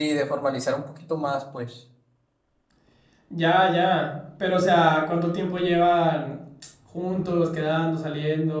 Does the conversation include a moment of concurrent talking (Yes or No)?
No